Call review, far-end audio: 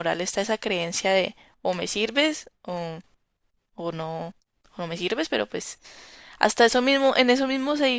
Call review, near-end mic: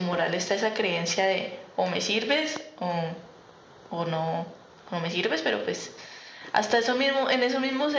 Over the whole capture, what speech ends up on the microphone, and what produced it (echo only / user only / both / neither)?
echo only